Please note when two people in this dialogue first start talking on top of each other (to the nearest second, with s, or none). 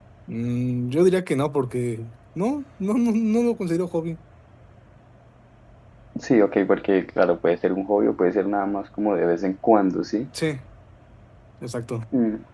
none